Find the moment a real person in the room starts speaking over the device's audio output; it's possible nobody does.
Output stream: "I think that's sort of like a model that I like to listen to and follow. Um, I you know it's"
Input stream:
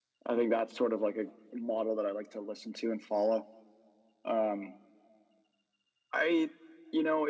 none

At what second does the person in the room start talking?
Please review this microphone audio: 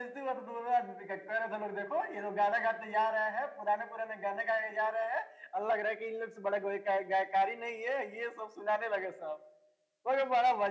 none

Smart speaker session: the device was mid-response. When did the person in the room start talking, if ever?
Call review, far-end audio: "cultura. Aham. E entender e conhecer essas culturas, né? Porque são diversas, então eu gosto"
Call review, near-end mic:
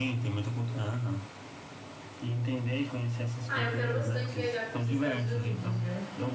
3.5 s

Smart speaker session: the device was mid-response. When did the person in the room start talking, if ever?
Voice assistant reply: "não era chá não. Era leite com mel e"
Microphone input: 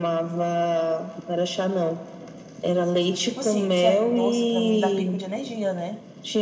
3.2 s

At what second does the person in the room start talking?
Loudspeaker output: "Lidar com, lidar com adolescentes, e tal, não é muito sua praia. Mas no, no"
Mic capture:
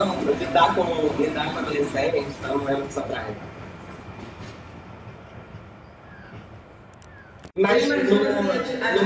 7.7 s

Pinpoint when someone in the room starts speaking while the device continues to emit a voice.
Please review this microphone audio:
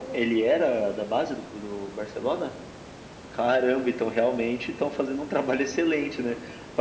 none

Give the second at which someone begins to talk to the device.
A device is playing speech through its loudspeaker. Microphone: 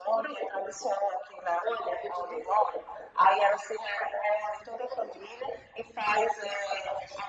none

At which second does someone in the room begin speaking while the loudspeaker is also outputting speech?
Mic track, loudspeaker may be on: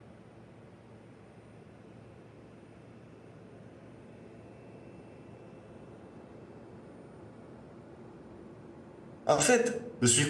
9.3 s

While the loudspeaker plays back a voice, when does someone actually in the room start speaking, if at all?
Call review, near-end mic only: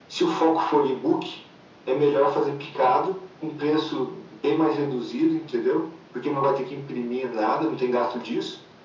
none

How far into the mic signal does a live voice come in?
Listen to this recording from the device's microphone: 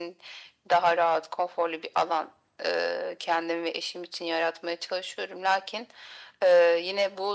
none

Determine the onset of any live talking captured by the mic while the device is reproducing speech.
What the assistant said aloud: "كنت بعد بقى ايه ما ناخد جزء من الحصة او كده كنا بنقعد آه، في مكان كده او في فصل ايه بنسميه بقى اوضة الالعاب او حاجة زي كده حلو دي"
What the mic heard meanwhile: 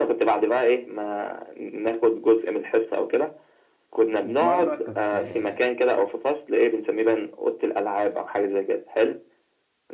4.3 s

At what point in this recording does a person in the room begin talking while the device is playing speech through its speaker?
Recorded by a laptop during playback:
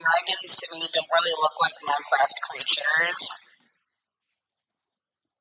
none

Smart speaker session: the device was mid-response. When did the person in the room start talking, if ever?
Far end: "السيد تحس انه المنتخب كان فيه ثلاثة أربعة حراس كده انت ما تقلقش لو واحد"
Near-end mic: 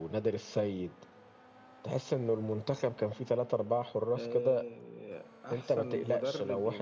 4.2 s

